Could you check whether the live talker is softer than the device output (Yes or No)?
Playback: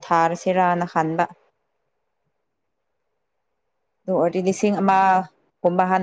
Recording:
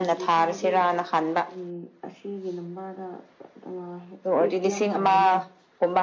Yes